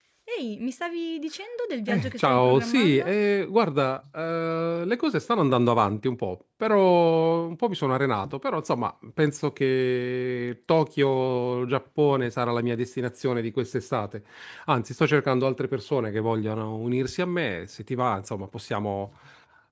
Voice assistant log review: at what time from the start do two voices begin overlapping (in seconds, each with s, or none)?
1.9 s